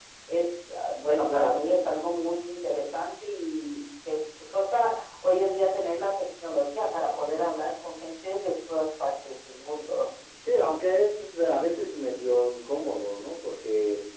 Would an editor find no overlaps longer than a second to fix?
Yes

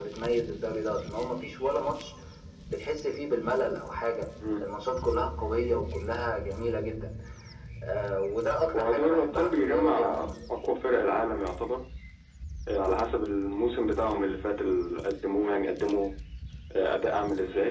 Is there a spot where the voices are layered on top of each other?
Yes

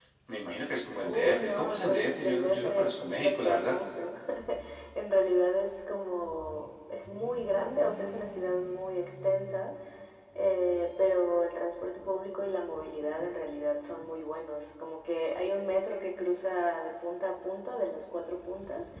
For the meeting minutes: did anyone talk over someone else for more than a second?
Yes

